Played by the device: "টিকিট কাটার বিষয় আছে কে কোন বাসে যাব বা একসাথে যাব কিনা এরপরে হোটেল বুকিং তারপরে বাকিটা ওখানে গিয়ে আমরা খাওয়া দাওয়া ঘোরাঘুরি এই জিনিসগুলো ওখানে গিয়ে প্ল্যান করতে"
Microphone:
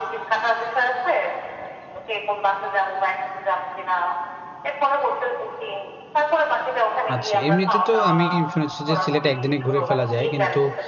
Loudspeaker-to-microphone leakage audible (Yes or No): Yes